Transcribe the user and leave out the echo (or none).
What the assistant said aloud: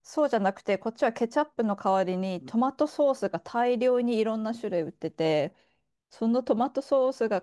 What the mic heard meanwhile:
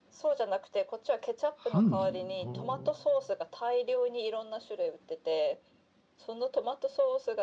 ハンギはあ。